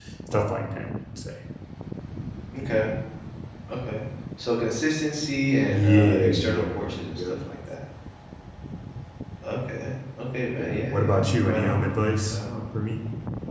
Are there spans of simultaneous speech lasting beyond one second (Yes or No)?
Yes